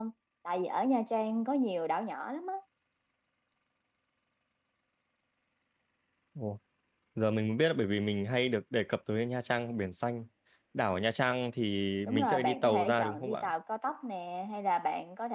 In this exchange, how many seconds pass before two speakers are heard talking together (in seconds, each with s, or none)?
12.1 s